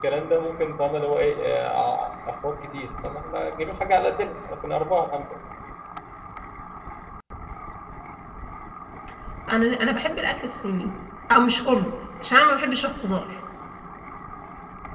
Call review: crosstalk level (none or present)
none